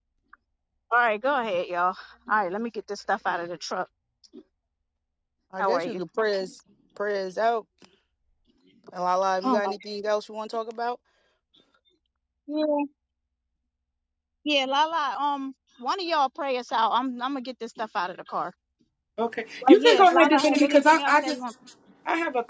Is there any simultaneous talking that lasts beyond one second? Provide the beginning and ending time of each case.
19.7-21.4

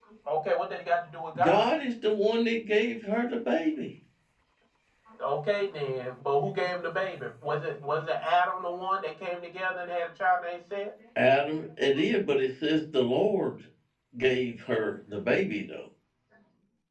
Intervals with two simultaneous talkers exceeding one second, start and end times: none

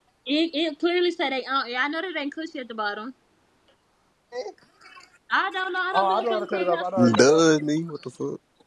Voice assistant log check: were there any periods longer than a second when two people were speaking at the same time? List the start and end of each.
5.9-7.4

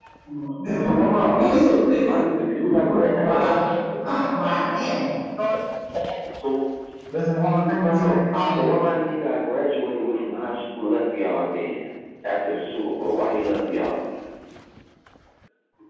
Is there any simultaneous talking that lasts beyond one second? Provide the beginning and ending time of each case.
0.7-3.6, 7.6-8.8

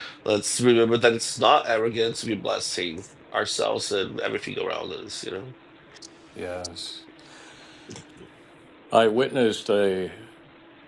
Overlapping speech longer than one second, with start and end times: none

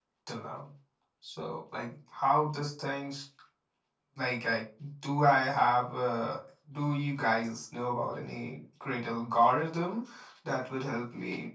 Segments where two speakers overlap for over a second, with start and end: none

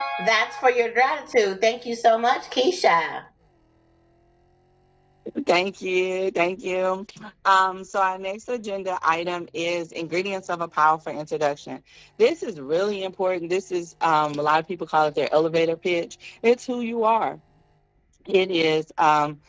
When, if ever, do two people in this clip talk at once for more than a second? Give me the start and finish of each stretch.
none

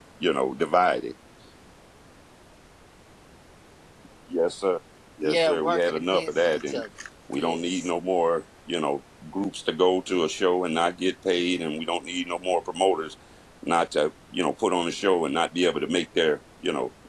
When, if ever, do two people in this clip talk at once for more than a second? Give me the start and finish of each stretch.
5.2-6.8

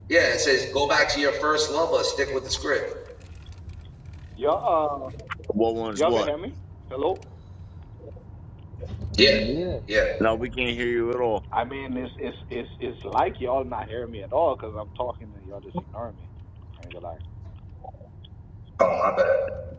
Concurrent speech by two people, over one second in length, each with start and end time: none

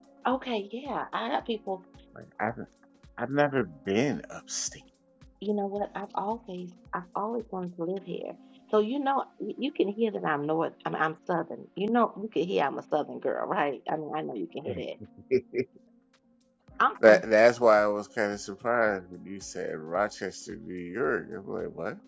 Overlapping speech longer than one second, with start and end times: none

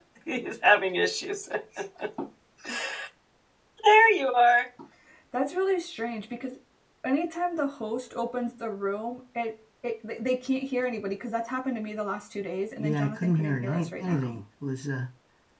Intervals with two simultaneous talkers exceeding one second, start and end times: 12.8-14.3

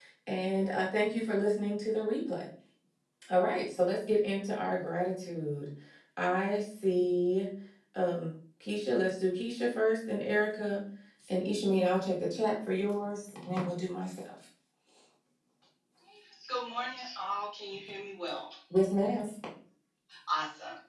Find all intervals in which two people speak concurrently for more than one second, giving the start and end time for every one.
none

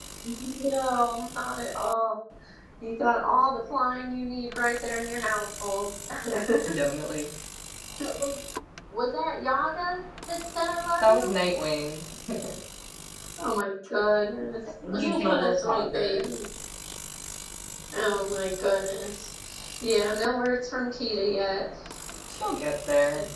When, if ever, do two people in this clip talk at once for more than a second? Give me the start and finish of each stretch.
14.8-16.2

